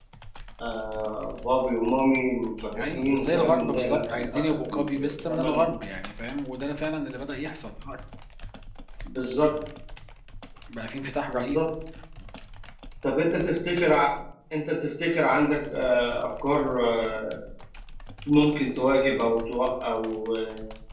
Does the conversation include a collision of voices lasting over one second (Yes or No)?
Yes